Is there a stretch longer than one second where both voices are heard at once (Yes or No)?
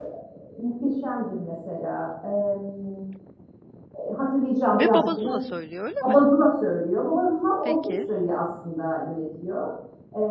No